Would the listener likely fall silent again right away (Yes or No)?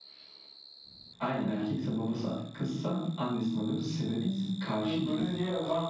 No